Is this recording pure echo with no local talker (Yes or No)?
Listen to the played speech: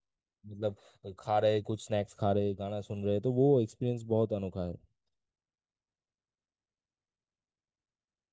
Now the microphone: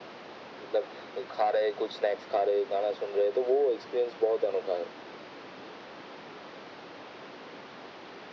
Yes